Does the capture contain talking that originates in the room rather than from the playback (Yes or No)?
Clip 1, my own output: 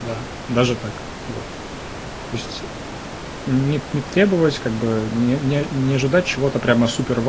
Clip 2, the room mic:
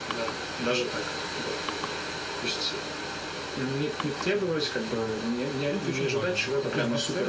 Yes